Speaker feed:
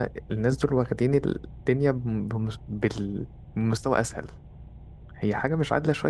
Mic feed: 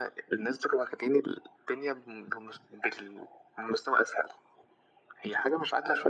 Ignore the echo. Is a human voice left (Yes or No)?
No